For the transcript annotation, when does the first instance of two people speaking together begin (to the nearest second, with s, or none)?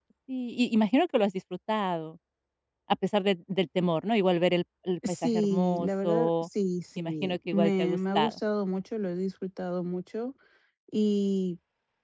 5 s